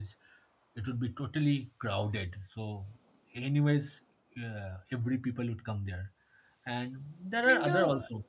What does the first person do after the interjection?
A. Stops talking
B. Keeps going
A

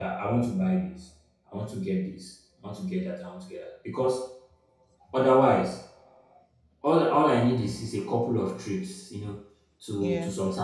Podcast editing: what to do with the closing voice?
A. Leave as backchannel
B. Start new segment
A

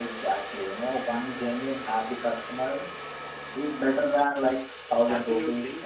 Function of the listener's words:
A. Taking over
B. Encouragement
A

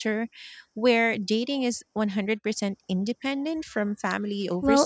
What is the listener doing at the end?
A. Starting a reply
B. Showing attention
A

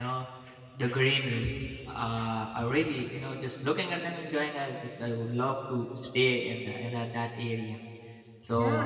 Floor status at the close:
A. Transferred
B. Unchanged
A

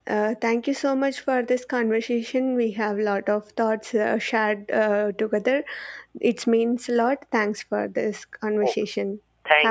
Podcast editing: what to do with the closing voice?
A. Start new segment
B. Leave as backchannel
A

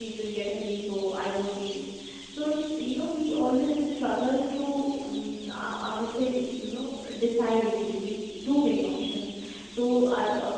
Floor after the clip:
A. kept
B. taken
A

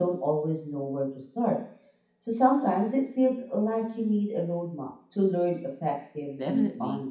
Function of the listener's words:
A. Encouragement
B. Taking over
B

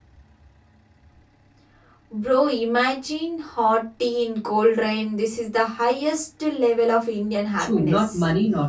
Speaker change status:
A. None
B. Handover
B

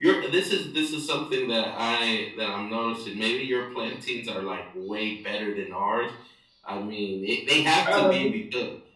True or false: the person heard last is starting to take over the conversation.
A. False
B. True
A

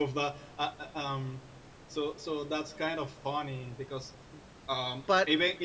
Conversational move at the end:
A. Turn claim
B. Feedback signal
B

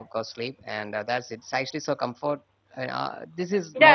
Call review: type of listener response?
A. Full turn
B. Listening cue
A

